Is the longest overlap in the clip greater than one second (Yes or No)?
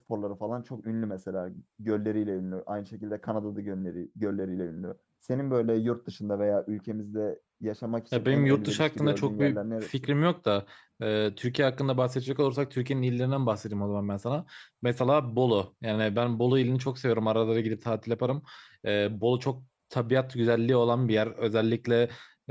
Yes